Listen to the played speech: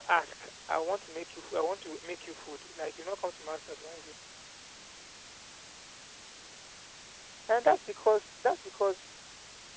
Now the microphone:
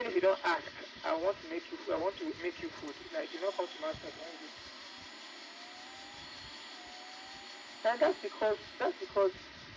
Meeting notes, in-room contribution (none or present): none